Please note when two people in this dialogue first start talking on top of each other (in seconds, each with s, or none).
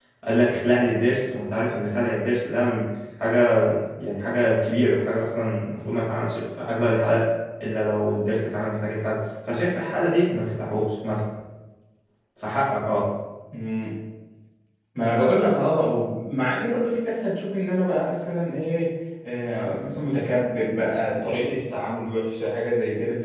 none